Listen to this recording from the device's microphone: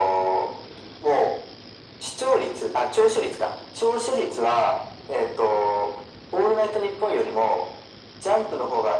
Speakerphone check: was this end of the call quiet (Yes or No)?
Yes